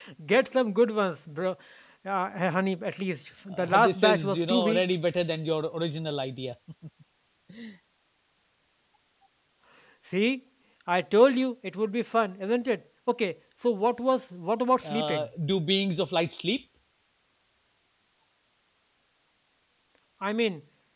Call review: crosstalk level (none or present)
present